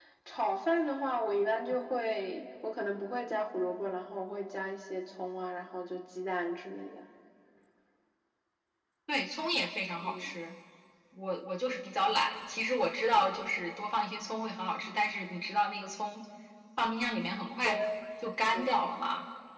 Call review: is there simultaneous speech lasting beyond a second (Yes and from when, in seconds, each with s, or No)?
No